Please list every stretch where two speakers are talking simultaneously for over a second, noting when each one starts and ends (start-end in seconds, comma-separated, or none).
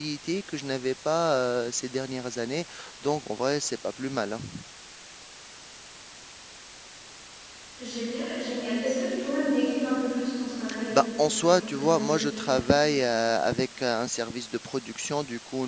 10.9-12.6